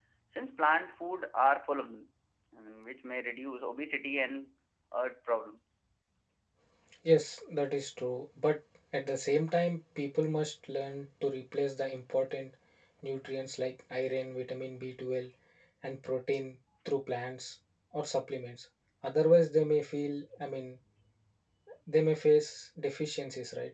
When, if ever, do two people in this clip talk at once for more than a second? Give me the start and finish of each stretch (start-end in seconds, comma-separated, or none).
none